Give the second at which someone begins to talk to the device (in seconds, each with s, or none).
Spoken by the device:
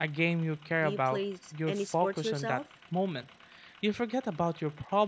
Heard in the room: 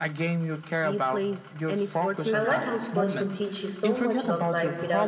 2.3 s